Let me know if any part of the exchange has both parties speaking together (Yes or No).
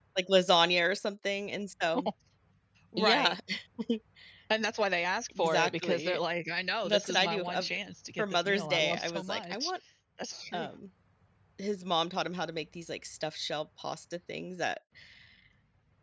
Yes